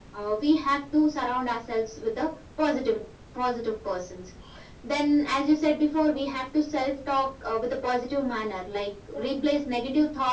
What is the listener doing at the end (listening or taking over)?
listening